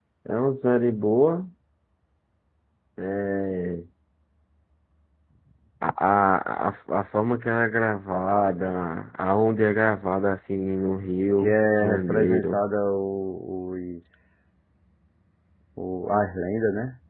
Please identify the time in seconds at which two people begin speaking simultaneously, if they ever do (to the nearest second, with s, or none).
11 s